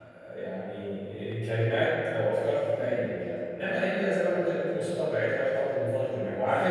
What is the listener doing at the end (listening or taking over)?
listening